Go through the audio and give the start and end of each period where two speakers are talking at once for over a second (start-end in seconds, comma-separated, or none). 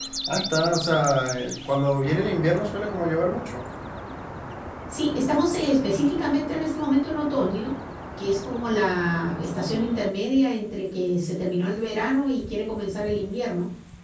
none